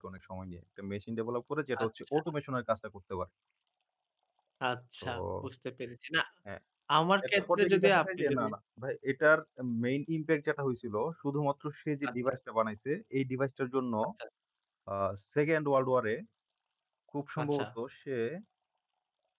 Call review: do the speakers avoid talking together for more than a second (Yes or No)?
No